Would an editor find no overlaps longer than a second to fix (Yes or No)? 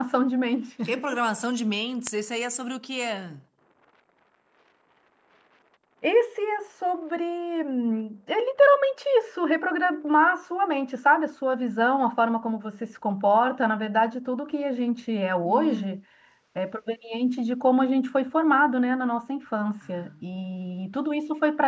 Yes